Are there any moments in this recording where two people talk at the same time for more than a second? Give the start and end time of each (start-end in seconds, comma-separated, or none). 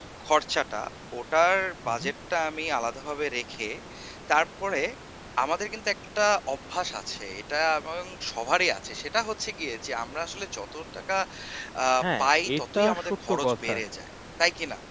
12.2-13.7